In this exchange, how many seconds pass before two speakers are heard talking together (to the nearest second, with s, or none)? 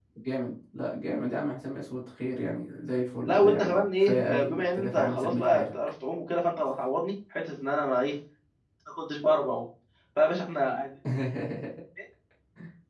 3 s